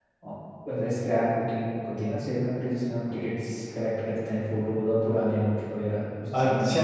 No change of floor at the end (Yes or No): No